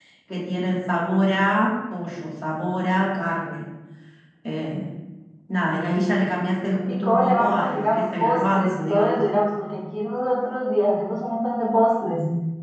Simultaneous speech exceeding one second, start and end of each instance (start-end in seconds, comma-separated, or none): 6.9-9.2